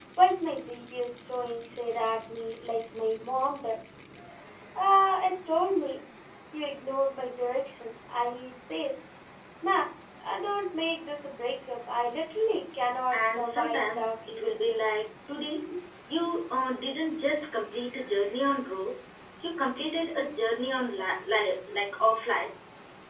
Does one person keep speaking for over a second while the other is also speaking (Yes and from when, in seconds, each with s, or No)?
Yes, from 13.1 s